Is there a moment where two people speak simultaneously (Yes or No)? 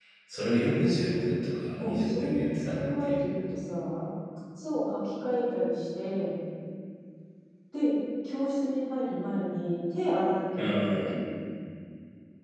Yes